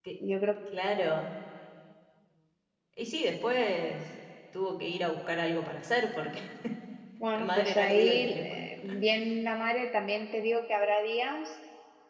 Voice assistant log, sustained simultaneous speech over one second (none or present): present